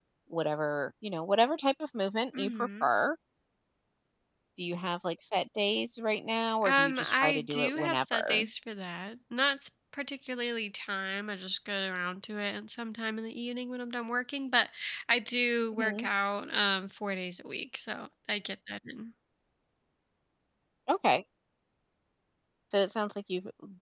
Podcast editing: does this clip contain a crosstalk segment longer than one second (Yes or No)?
Yes